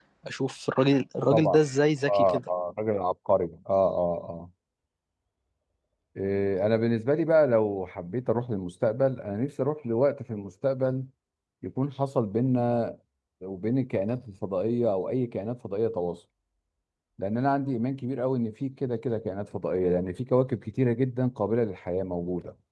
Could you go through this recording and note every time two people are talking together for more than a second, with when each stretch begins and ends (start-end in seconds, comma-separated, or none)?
none